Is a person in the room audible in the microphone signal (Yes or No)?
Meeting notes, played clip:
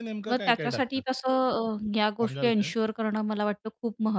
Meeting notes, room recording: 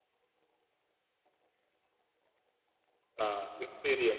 Yes